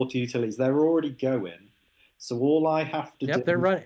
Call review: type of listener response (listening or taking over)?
taking over